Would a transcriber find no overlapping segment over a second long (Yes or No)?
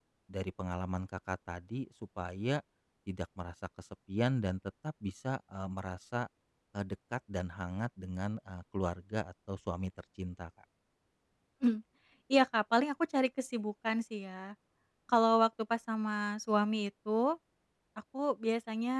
Yes